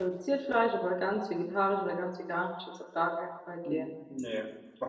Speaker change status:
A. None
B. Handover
B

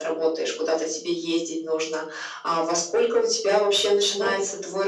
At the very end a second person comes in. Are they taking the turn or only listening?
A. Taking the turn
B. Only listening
B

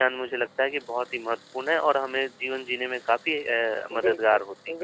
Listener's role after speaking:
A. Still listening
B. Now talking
B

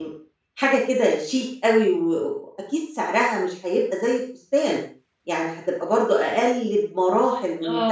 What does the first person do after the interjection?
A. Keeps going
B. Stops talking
B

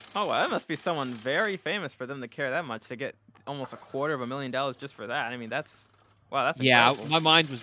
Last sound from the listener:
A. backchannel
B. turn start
B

